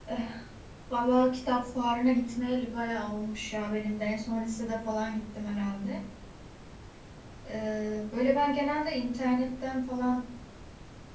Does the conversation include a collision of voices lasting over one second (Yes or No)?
No